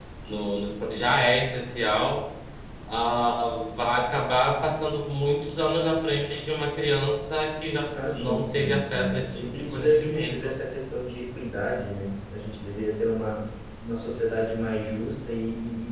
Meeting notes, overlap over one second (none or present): present